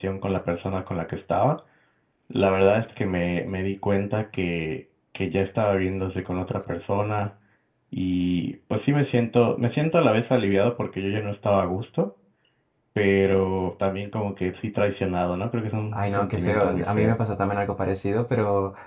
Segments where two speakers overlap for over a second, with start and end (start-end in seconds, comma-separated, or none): 15.9-17.2